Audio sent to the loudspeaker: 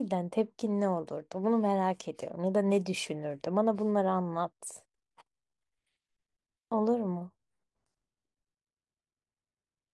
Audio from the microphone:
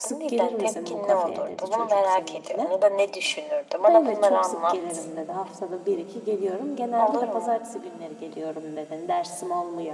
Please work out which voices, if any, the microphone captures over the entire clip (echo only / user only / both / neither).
both